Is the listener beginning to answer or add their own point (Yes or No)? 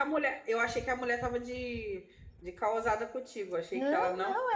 Yes